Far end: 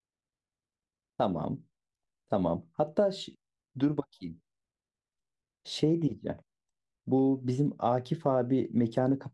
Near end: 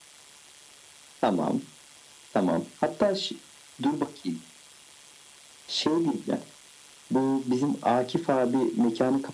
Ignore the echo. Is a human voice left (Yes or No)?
No